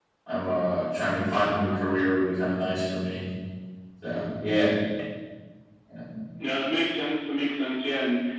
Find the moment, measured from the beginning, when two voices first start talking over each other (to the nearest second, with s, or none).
none